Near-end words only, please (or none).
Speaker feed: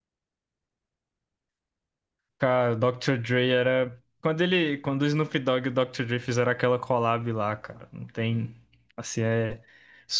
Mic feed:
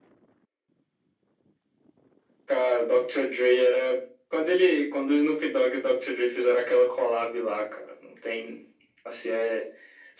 none